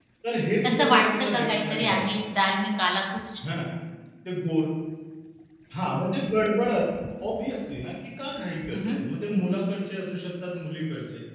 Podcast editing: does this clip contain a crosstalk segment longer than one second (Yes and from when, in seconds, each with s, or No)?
Yes, from 0.6 s